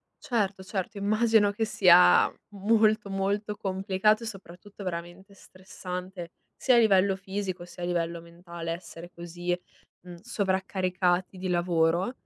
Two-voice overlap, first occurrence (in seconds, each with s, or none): none